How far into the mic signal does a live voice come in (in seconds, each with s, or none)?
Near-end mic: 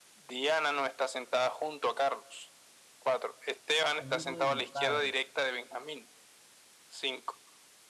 4.0 s